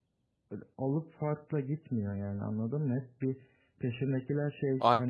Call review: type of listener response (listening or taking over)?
listening